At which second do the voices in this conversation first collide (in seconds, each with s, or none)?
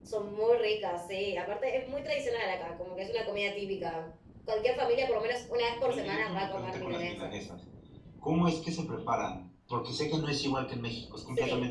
5.8 s